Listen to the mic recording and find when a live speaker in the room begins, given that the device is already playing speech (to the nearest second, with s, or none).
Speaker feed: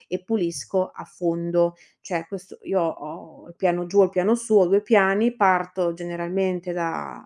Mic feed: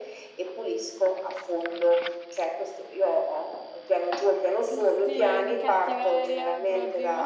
5 s